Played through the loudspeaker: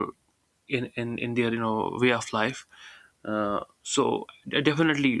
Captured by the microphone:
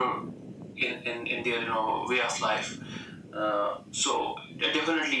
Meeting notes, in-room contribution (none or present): none